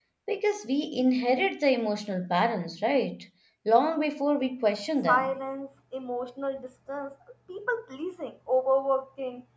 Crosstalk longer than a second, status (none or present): none